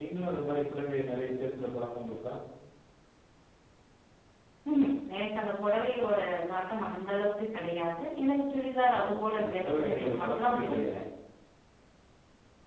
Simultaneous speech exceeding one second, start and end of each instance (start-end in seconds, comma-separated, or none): 9.3-10.8